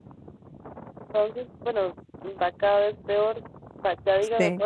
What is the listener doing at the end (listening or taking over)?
listening